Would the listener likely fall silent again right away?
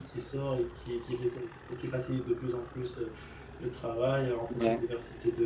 Yes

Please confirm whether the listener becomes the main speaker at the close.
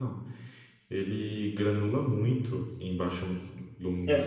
Yes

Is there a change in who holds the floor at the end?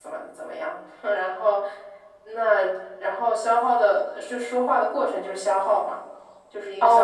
Yes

